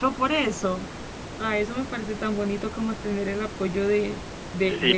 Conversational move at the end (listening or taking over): taking over